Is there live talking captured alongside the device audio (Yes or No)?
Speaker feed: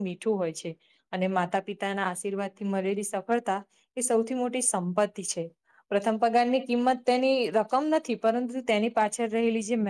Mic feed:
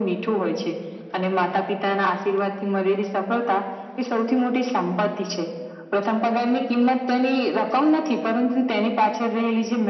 No